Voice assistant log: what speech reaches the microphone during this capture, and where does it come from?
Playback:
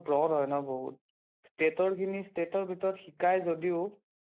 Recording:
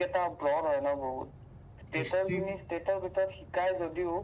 both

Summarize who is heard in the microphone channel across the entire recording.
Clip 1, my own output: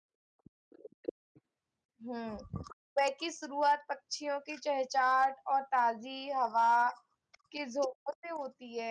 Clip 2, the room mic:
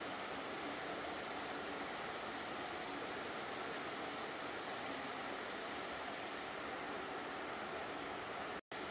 neither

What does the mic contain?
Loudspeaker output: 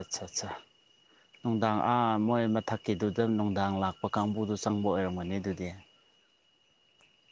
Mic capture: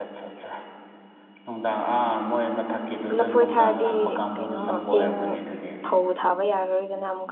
both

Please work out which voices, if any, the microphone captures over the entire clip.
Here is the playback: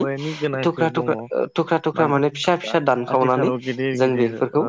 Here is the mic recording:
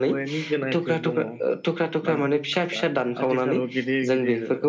echo only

